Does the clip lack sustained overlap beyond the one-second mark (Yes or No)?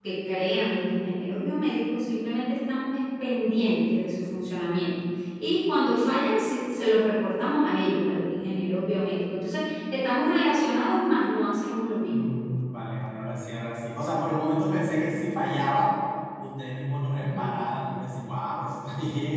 Yes